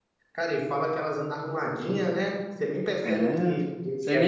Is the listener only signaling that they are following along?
No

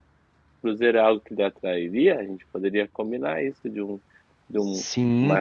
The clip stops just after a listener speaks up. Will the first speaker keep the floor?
No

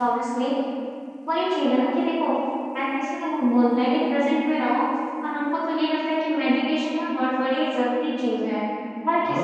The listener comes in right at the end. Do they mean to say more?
Yes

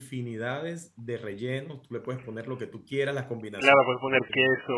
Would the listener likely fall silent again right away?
No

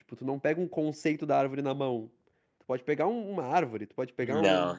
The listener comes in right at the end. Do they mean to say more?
No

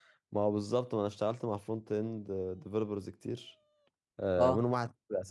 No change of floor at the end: Yes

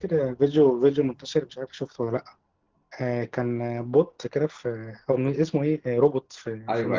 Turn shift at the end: Yes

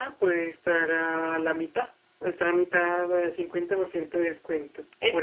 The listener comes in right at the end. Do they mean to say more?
Yes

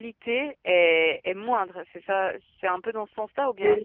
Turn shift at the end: Yes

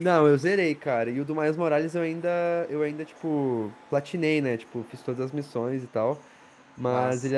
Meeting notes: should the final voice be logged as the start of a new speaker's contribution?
No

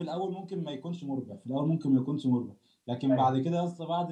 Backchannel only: Yes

